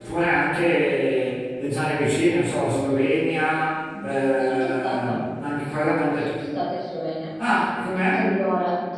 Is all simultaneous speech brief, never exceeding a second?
No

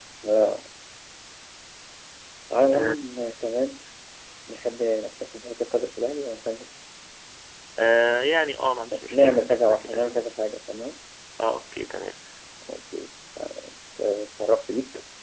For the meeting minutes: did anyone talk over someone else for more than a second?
Yes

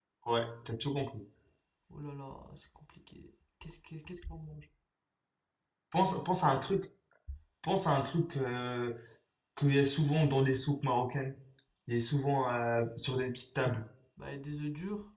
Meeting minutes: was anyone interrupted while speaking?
No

